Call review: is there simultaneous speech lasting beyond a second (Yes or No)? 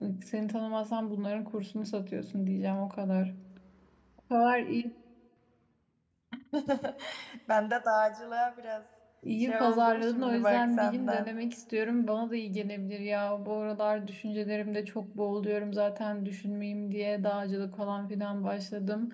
Yes